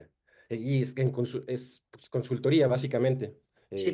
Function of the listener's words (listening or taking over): taking over